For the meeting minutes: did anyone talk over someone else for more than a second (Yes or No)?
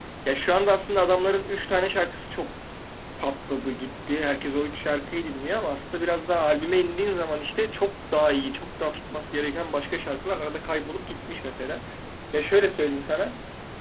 No